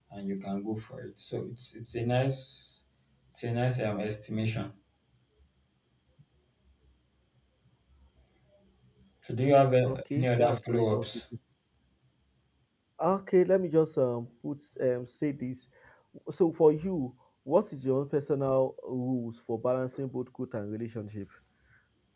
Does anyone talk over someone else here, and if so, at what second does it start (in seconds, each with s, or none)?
9.8 s